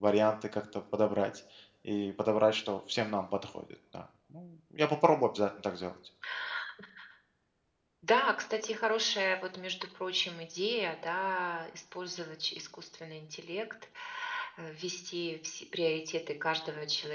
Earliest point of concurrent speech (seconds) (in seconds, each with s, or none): none